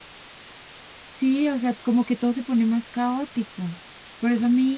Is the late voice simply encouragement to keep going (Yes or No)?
Yes